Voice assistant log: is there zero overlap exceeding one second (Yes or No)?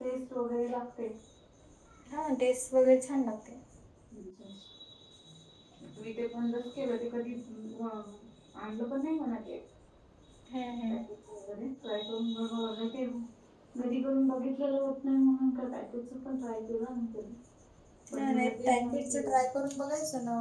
No